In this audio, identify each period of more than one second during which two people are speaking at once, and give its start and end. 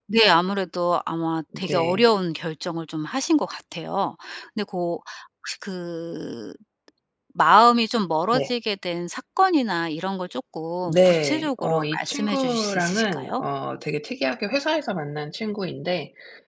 10.9-13.4

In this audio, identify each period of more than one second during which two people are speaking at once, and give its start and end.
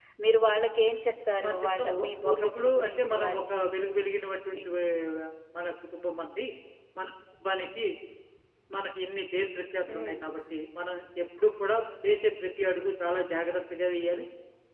1.4-3.6

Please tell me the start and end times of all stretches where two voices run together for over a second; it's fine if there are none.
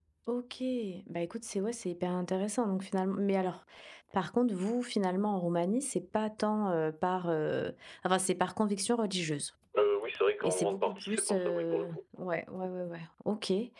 10.4-11.9

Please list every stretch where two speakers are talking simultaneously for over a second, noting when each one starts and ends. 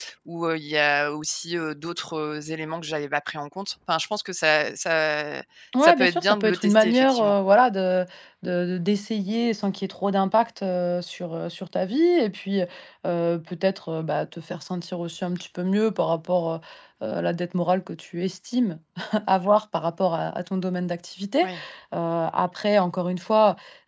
5.8-7.3

